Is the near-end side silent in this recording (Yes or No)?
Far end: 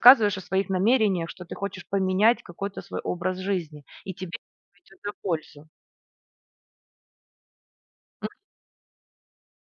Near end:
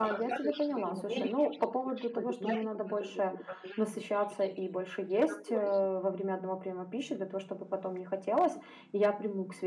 No